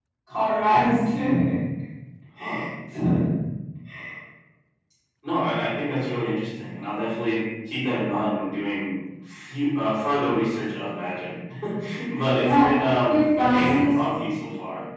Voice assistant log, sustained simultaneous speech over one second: present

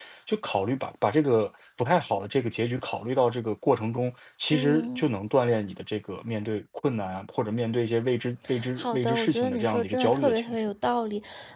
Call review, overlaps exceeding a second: present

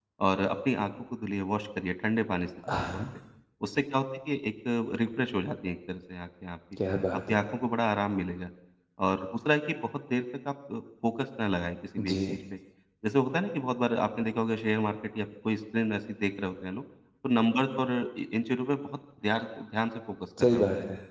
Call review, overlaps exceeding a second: none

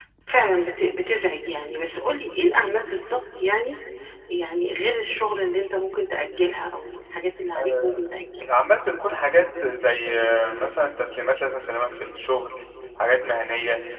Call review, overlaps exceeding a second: none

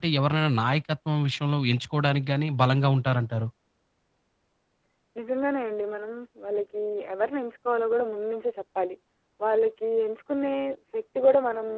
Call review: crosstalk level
none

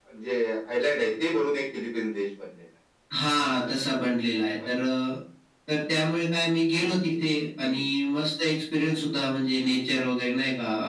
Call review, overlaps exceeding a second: none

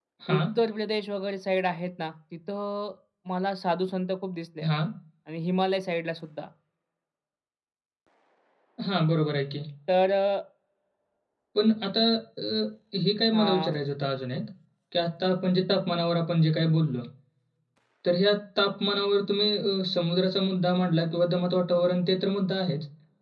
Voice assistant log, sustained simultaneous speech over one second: none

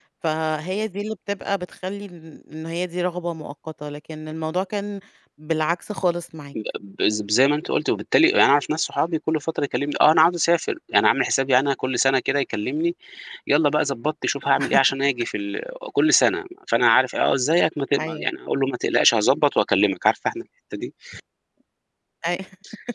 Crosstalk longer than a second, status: none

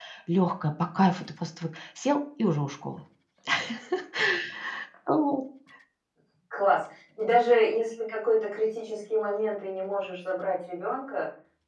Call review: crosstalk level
none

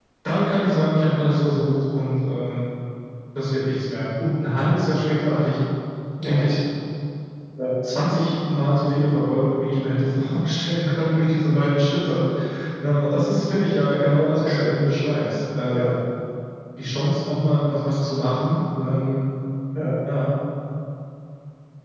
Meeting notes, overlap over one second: none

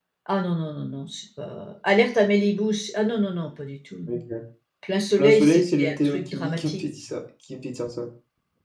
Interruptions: present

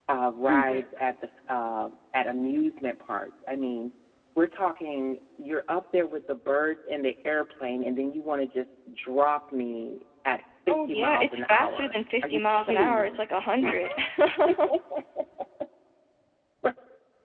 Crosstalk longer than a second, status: present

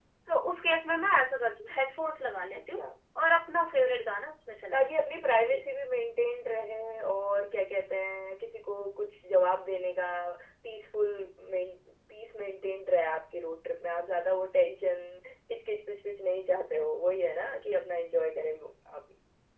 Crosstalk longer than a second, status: none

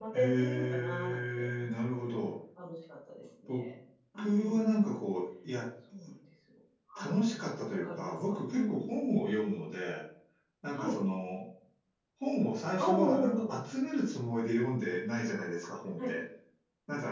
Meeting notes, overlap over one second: present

